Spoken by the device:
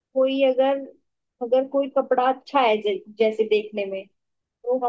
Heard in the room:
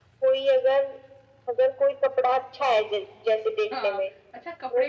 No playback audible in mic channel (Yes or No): No